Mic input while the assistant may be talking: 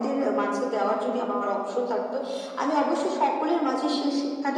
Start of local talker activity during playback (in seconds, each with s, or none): none